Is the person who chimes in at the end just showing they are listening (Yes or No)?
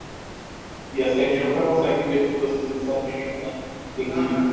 Yes